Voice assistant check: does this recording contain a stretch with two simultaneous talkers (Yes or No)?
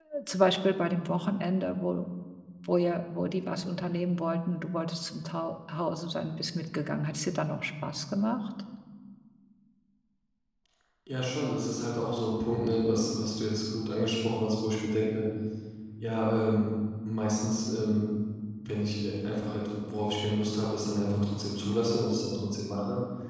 No